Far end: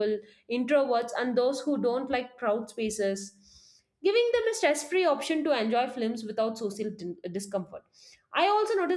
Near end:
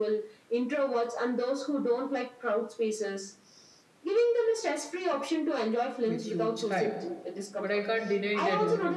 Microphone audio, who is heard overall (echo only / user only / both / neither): both